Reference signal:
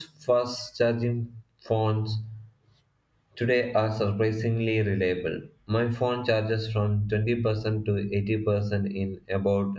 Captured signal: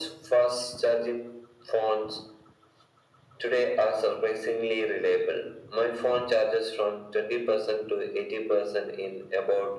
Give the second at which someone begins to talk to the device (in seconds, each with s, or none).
none